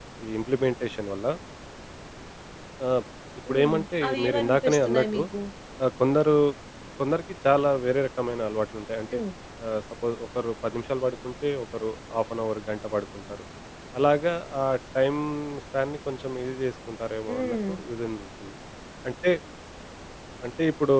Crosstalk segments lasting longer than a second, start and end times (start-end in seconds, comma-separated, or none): 3.5-5.2